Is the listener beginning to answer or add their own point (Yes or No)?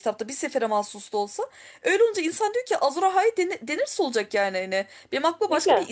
No